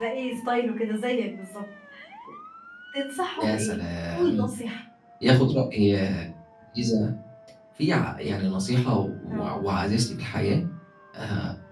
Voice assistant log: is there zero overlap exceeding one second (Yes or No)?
Yes